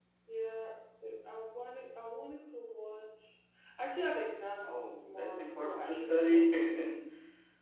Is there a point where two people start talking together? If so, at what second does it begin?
4.6 s

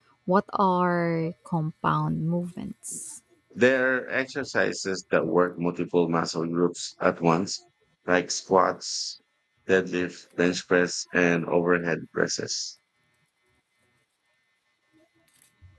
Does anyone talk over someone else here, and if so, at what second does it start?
none

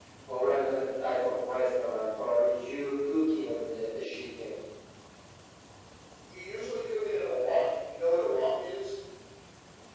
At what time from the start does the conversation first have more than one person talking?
none

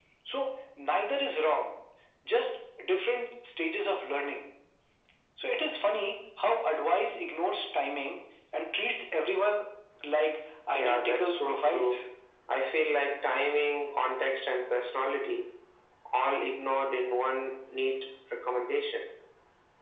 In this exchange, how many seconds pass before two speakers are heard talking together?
10.7 s

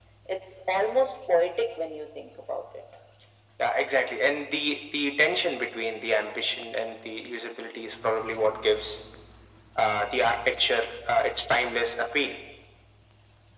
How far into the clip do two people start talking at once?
none

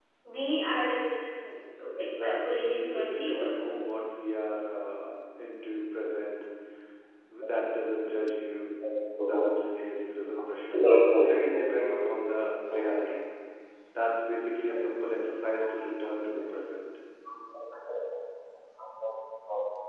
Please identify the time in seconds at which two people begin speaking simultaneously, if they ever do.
2.0 s

